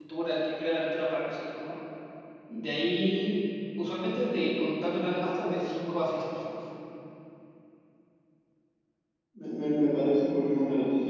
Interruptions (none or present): none